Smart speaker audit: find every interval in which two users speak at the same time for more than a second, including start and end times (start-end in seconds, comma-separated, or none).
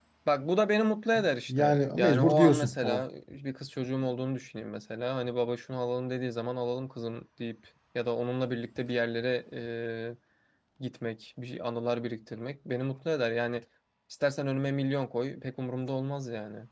1.5-3.0